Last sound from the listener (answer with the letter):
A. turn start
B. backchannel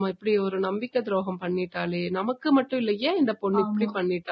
B